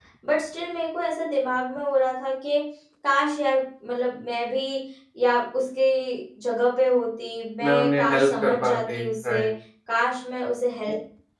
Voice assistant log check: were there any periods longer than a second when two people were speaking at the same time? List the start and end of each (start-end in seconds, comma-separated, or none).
7.6-9.5